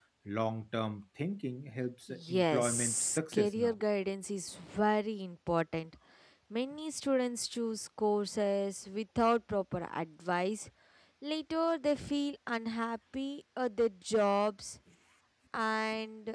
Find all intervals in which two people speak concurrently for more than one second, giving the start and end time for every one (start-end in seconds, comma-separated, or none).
2.1-3.7